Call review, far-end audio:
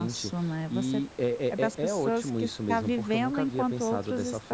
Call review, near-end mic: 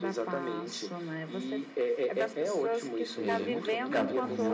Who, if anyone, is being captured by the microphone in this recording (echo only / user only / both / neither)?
both